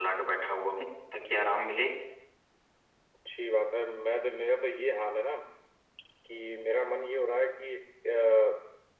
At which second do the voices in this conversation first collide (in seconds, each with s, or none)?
none